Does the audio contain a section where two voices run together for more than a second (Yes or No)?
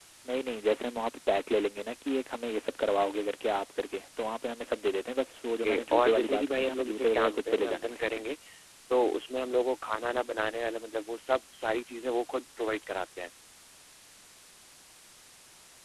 Yes